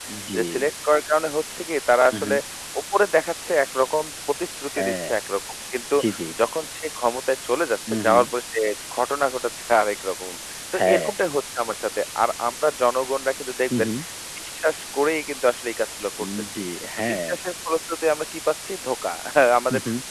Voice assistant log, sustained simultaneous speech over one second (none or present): none